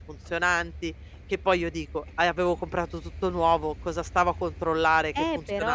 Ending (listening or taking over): taking over